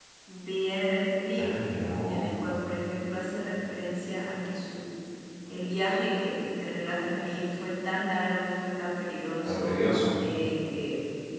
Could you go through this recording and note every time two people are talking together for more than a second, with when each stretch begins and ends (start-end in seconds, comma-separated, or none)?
none